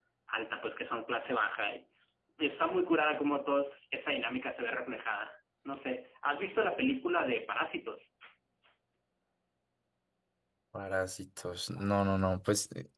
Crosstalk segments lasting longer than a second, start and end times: none

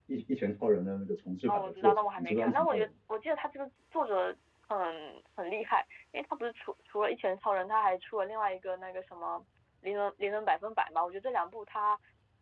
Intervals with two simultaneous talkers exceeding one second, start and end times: 1.5-2.9

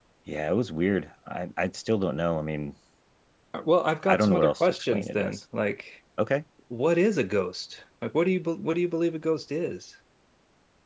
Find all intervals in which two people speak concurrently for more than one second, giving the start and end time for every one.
4.1-5.4

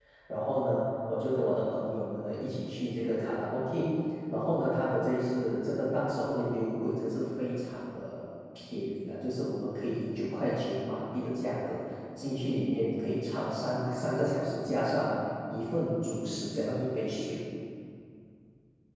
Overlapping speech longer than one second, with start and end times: none

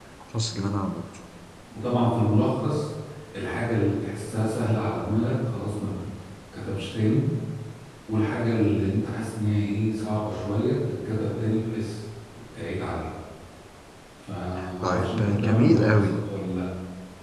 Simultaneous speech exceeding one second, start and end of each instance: 14.8-16.1

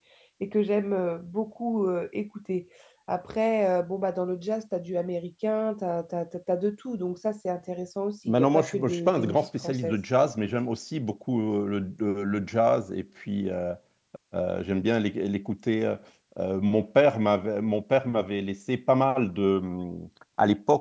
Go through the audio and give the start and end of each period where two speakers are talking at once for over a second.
8.3-10.0

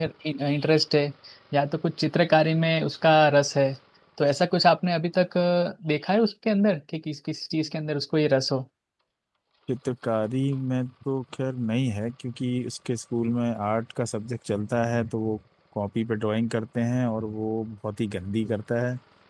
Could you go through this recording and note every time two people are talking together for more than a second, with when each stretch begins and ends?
none

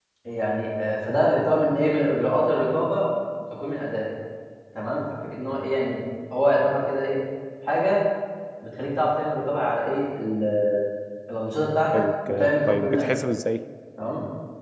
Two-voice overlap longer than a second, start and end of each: 11.9-13.2

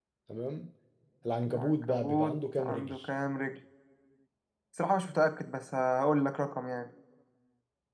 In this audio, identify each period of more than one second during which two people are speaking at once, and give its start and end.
1.5-3.0

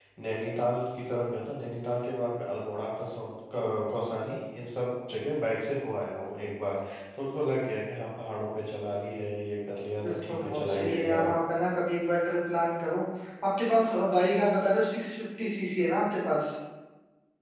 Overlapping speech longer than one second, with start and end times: 10.0-11.3

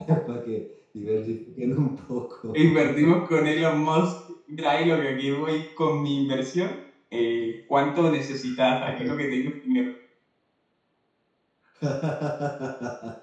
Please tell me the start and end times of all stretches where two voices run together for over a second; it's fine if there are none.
none

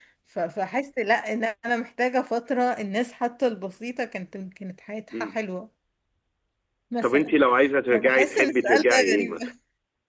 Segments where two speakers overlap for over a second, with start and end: 7.9-9.4

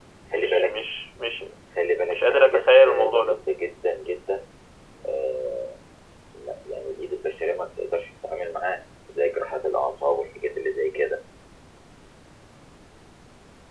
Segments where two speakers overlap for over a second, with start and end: 2.1-3.4

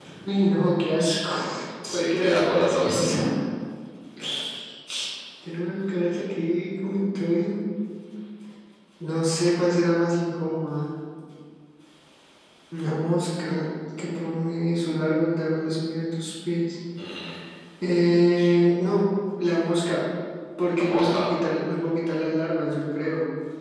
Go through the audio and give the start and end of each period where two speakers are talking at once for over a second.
1.9-3.1

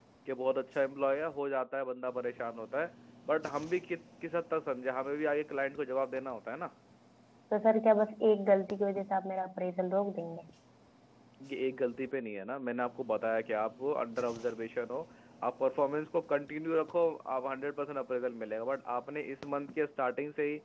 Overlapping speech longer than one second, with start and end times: none

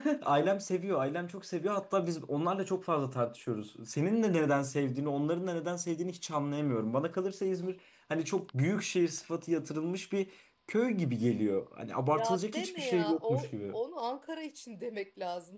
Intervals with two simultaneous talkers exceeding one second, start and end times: 12.1-13.8

